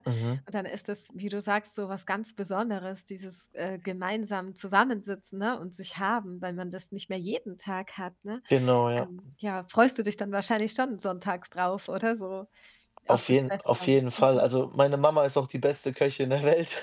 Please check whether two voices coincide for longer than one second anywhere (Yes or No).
Yes